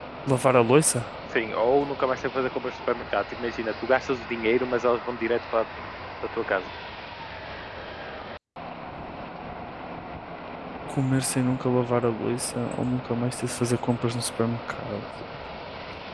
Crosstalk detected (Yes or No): No